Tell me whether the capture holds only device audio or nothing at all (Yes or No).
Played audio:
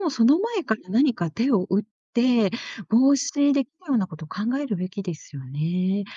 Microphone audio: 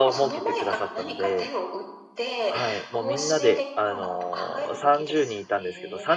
No